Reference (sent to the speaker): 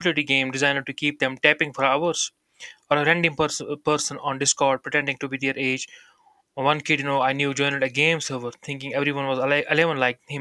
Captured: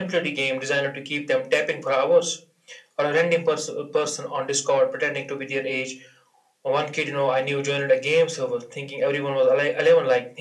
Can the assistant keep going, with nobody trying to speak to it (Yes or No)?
Yes